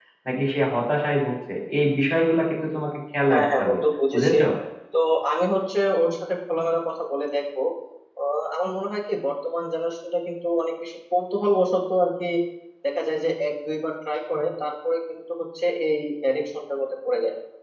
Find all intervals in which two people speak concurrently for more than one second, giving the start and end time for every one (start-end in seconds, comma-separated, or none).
none